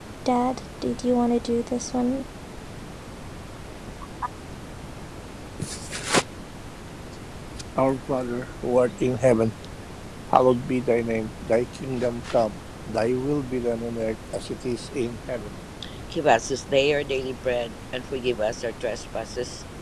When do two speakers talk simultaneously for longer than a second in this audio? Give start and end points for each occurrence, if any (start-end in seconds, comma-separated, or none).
none